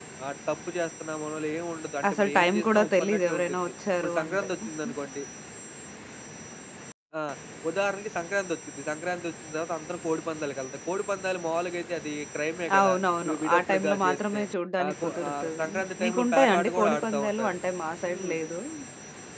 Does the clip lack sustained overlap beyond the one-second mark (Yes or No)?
No